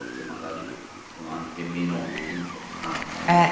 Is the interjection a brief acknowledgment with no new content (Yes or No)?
No